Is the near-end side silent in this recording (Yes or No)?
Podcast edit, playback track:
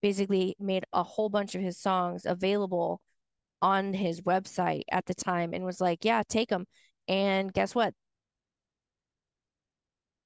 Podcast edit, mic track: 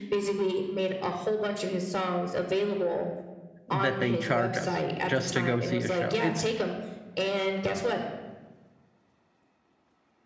No